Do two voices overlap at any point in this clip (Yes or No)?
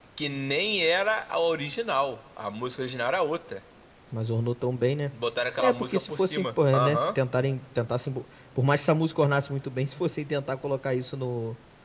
Yes